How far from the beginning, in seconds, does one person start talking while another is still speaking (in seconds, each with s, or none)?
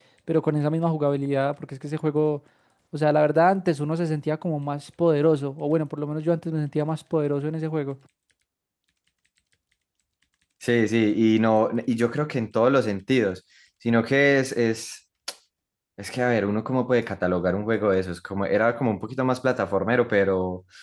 none